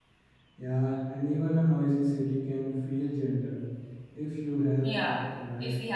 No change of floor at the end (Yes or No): No